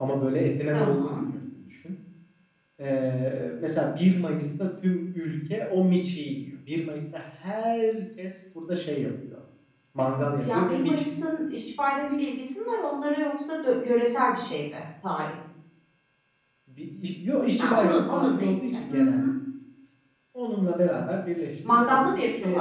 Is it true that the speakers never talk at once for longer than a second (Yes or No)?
No